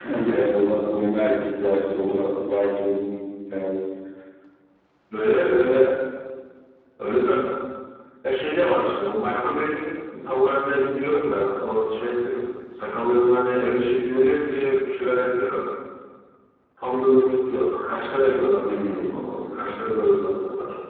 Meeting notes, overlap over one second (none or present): none